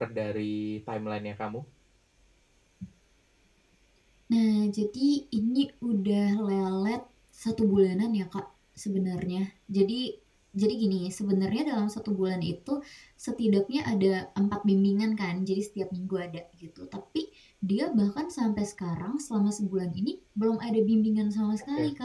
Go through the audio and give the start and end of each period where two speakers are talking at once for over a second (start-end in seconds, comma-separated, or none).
none